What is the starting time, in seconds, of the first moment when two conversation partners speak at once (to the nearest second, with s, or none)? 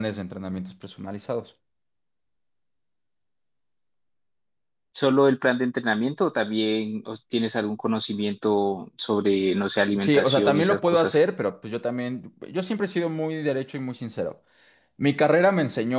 10 s